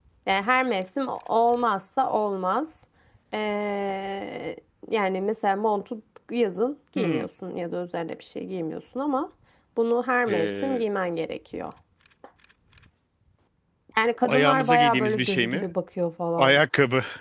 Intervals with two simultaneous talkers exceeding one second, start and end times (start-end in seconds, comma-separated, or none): 14.3-15.7